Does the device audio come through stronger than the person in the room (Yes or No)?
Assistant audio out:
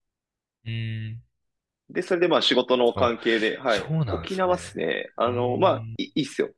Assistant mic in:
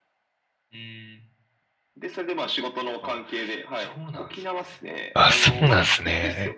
No